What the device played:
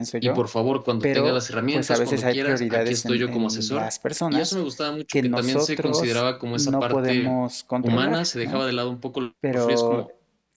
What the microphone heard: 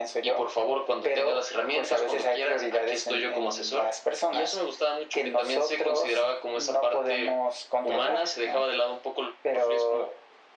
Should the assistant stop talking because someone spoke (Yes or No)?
No